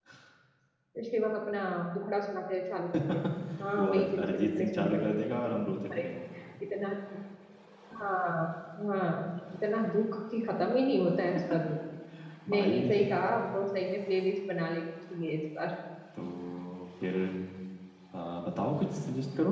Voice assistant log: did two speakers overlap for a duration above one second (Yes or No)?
Yes